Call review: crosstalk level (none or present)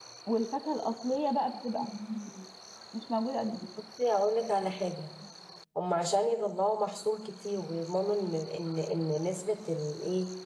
none